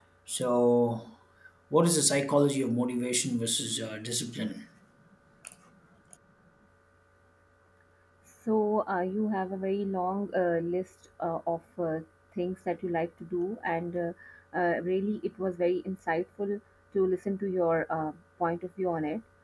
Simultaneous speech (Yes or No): No